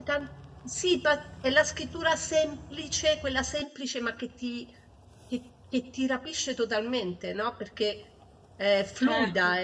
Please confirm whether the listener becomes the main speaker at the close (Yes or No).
No